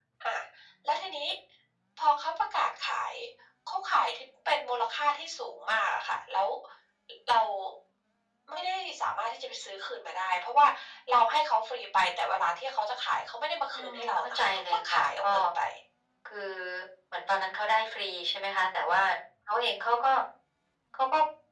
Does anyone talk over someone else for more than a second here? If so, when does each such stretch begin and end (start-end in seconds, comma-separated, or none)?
13.7-15.3